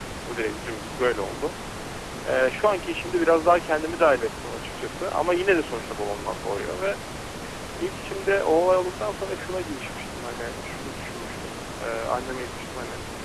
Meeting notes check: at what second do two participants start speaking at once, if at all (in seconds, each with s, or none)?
none